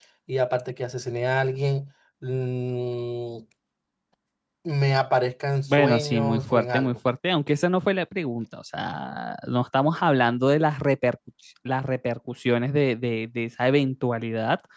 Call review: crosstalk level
present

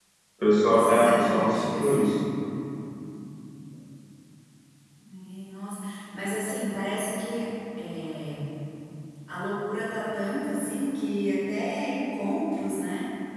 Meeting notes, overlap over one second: present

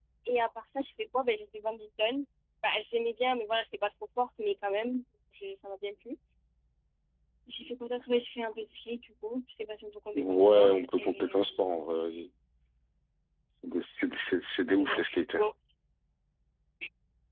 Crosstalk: present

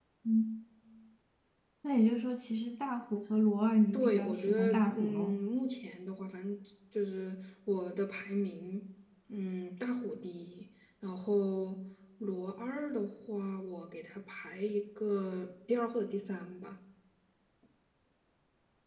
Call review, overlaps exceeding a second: present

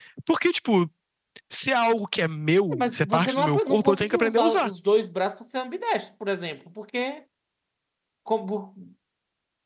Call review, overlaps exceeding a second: present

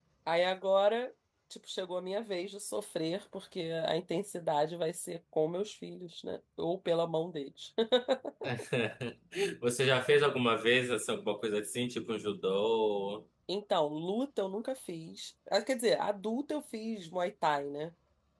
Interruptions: none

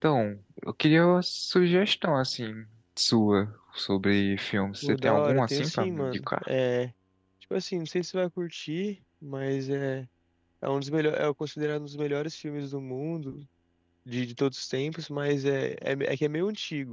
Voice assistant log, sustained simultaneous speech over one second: present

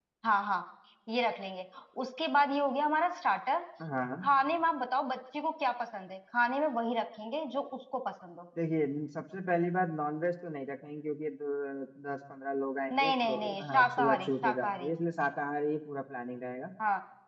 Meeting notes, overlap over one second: present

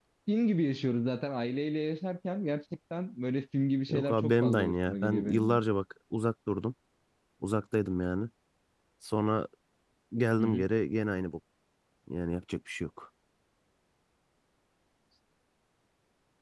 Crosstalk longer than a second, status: present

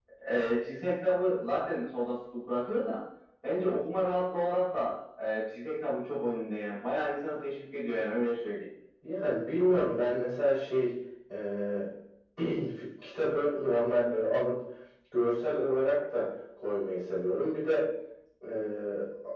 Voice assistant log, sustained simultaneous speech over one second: none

